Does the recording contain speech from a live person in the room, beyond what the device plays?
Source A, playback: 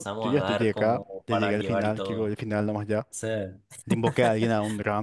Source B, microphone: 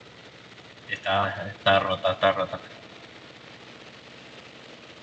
Yes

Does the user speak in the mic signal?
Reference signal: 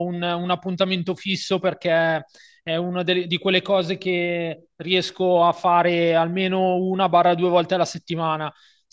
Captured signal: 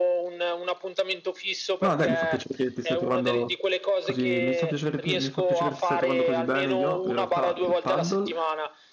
Yes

